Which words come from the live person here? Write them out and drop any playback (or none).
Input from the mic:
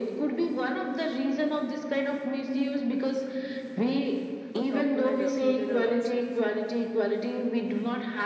a proper uh, funeral also